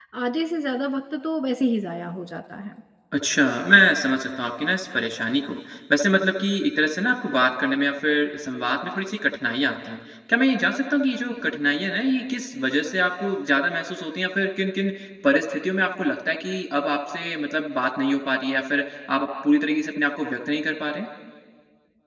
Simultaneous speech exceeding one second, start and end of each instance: none

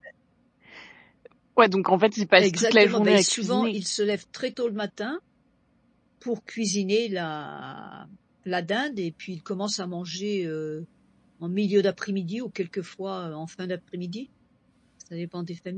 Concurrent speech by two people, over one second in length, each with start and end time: 2.4-3.8

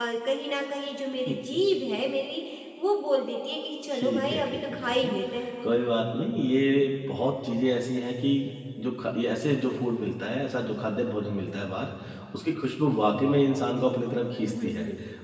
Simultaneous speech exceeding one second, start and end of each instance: 3.9-5.1

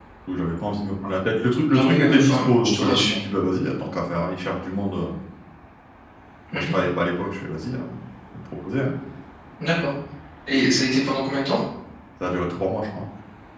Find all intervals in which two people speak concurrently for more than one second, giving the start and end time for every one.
1.7-3.2

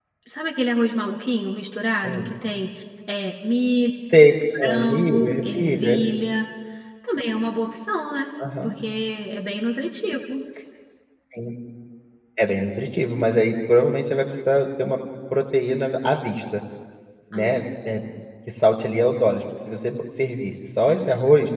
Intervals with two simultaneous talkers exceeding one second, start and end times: 4.6-6.0

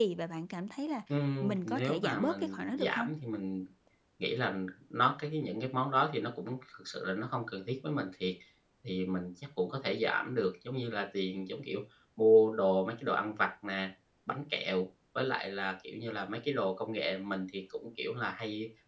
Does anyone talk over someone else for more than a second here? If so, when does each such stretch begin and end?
1.4-3.1

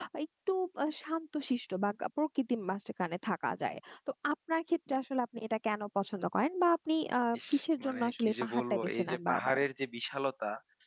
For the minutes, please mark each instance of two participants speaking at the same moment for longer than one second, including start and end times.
7.8-9.6

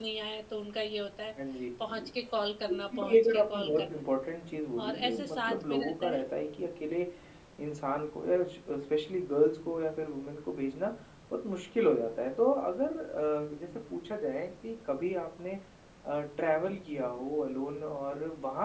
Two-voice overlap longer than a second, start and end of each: 2.7-4.0, 4.8-6.2

